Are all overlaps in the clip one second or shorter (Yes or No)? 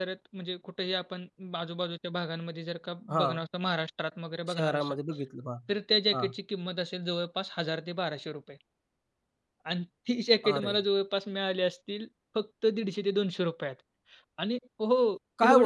Yes